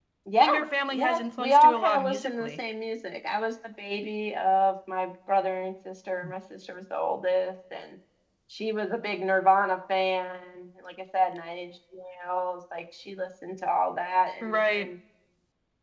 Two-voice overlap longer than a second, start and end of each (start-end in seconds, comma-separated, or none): 0.9-2.5